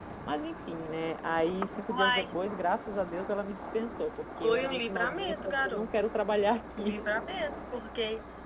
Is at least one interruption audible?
Yes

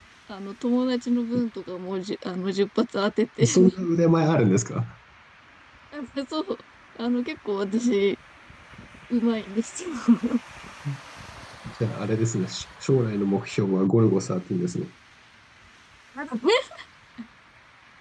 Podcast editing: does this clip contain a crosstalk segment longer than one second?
No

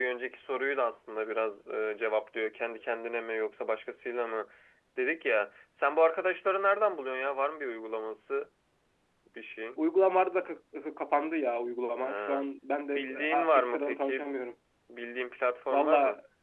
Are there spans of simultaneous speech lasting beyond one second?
Yes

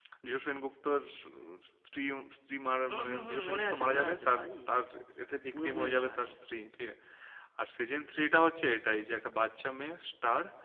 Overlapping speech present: Yes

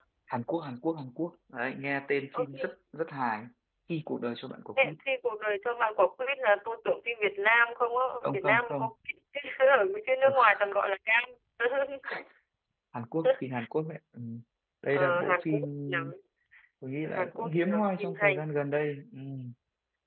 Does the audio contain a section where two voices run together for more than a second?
Yes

